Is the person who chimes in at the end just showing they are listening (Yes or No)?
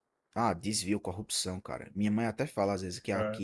Yes